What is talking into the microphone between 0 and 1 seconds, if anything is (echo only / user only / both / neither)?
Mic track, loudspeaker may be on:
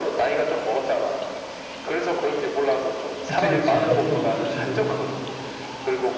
echo only